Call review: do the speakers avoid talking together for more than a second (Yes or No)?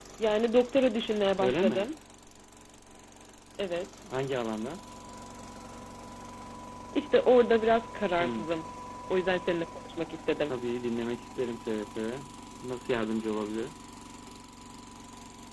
Yes